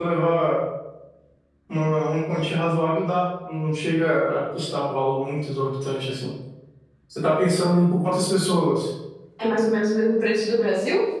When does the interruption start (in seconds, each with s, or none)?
none